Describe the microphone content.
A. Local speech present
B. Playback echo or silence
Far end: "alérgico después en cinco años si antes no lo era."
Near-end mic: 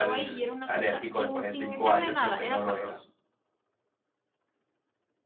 A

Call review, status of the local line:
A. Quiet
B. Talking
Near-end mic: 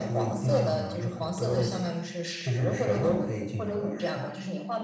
A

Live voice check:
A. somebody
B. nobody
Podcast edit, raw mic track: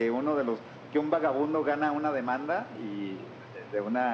B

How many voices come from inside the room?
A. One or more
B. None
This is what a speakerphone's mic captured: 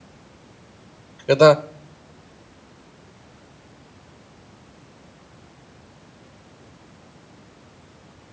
A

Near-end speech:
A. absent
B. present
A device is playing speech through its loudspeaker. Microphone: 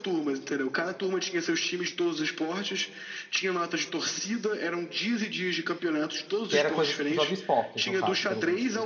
B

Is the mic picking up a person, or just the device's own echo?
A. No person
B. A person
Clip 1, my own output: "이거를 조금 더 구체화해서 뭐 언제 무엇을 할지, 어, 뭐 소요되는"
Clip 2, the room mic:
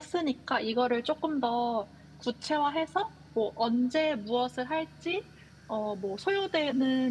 A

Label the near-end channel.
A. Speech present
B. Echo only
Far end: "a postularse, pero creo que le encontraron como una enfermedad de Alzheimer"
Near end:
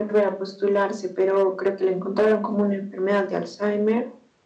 B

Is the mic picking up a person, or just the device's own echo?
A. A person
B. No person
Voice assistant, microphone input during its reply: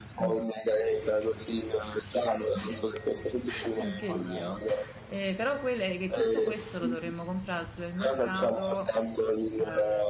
A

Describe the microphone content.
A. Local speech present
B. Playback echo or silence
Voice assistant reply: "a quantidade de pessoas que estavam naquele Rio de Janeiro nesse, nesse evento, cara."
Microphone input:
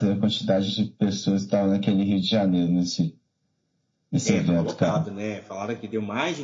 A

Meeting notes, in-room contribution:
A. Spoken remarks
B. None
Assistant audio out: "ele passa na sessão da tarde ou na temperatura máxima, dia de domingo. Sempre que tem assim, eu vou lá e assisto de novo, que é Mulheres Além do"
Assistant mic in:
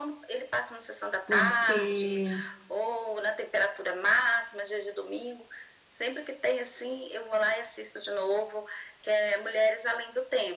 A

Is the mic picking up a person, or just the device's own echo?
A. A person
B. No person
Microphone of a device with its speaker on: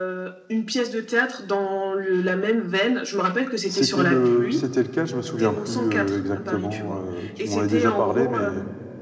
A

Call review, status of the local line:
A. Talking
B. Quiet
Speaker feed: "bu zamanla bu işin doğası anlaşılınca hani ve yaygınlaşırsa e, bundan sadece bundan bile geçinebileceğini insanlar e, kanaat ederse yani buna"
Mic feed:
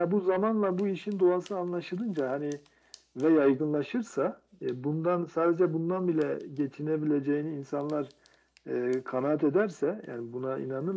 B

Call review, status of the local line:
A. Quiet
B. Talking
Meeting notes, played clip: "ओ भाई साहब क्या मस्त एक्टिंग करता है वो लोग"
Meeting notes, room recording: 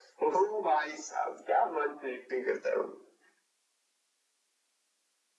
A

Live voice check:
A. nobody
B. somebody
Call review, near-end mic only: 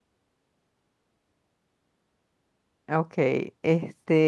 B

